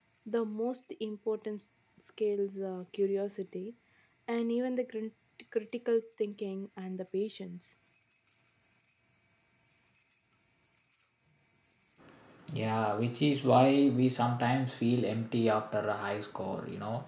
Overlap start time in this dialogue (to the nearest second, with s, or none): none